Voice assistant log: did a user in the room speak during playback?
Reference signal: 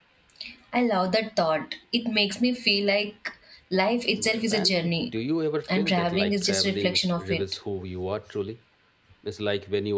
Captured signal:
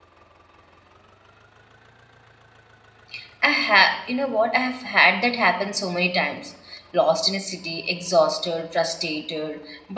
Yes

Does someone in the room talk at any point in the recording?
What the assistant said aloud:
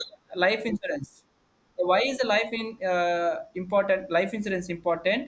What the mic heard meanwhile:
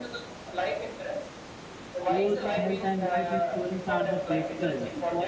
Yes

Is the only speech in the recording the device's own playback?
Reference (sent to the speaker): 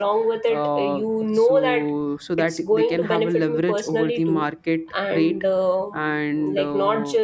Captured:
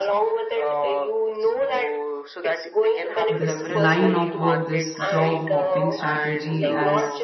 No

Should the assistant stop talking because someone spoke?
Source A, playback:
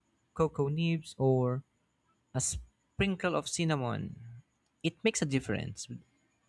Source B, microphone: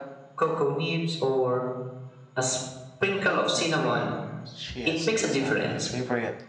Yes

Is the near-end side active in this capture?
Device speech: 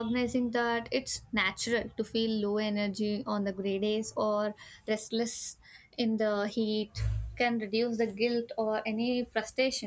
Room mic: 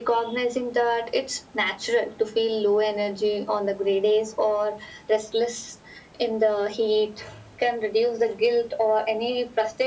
No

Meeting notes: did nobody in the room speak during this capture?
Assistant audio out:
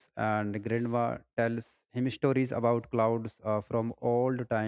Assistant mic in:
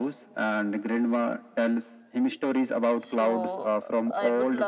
No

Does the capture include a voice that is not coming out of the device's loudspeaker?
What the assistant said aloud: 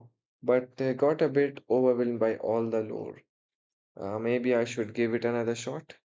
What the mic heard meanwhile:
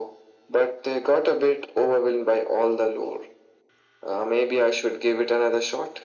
No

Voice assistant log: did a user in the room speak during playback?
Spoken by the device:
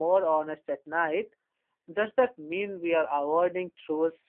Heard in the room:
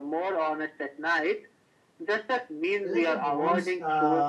Yes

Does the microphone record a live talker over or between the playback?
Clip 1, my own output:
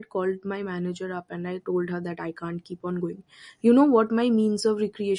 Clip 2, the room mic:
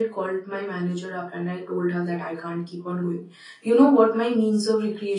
No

